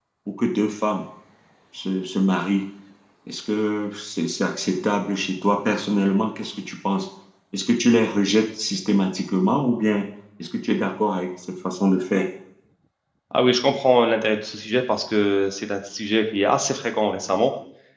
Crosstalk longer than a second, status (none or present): none